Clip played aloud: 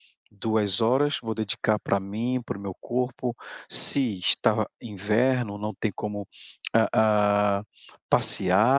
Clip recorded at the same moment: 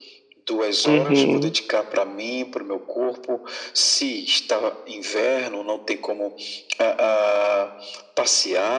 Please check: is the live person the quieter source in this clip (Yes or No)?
No